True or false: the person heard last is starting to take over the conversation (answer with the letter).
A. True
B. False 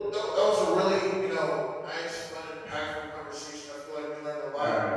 B